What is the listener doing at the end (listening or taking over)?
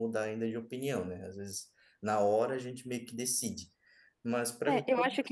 taking over